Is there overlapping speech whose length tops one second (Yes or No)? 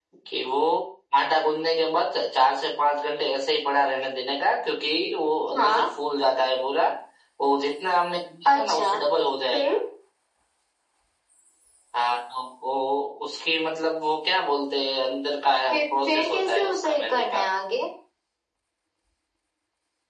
Yes